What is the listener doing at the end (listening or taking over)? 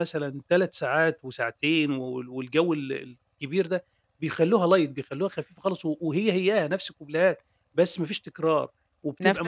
taking over